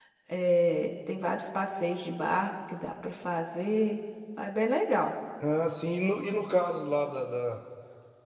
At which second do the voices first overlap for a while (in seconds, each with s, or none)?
none